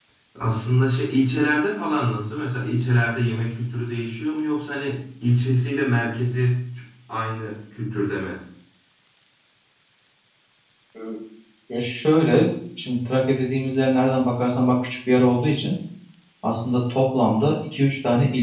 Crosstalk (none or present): none